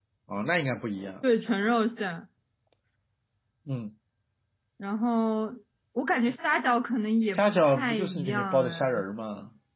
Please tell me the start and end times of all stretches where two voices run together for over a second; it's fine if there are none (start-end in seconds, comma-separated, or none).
7.3-9.0